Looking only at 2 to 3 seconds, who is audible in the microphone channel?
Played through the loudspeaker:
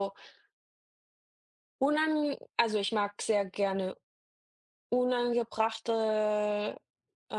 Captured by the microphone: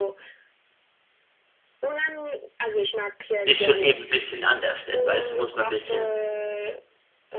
echo only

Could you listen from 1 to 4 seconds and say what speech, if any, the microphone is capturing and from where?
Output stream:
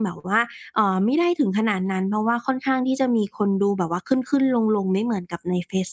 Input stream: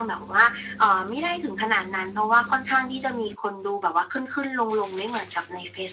echo only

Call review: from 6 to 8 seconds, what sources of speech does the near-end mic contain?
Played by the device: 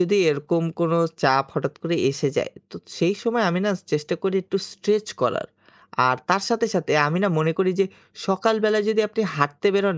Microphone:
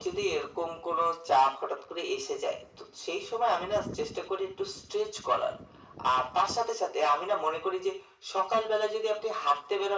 echo only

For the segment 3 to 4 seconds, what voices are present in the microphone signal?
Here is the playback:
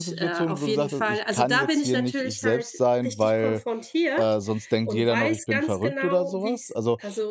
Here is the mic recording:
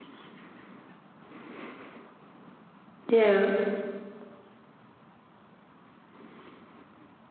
user only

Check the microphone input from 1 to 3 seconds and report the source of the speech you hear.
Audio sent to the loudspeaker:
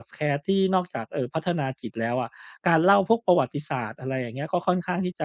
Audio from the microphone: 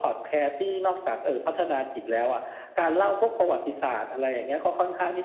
echo only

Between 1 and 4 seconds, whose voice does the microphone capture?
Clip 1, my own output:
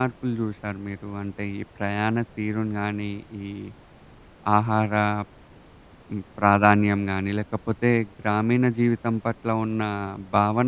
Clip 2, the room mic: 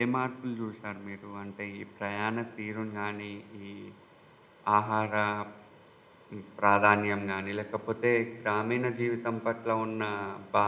echo only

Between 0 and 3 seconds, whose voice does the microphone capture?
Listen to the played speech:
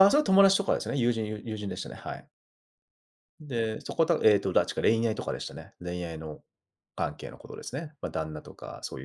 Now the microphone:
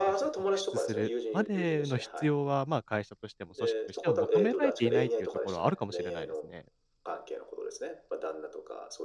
both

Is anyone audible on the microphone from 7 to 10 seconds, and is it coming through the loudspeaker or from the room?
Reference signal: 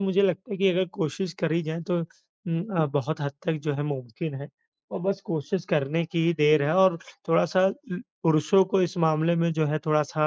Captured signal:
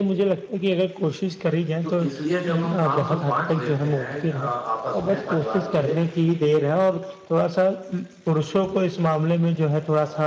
echo only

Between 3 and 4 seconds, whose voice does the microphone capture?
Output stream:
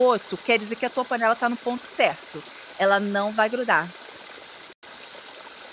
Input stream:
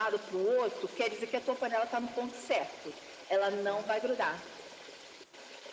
both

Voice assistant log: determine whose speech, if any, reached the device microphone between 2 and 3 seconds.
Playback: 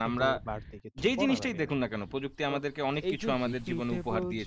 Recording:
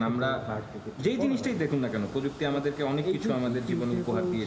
echo only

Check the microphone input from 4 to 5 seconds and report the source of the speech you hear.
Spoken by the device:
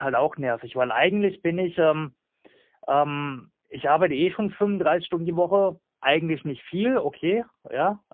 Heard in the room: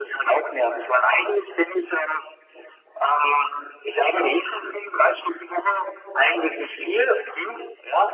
echo only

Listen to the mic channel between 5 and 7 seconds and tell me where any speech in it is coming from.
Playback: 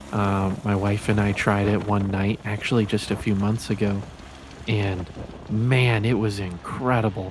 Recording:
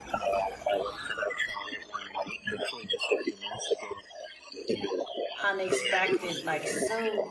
both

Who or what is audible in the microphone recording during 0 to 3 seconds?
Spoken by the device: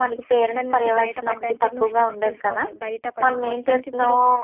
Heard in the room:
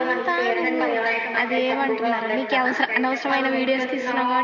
both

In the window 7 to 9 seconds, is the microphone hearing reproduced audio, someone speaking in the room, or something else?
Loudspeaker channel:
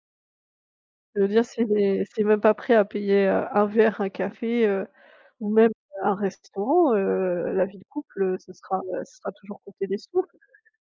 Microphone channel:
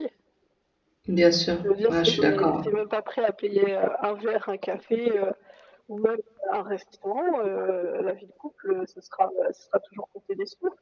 echo only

